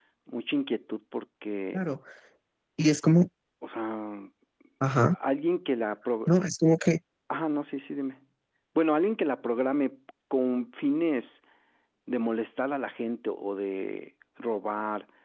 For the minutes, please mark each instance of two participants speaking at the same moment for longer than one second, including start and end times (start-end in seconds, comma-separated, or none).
none